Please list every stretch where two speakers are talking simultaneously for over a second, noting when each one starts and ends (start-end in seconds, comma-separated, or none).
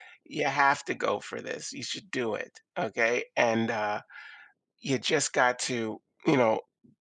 none